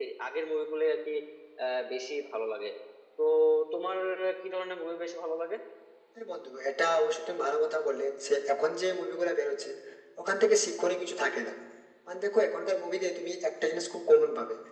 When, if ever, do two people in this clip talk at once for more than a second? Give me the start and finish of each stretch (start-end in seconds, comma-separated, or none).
none